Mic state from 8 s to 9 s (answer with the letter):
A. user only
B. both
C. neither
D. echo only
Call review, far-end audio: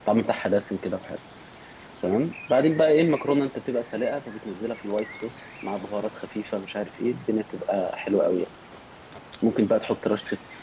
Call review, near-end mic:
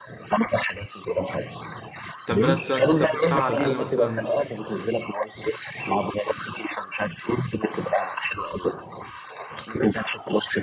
D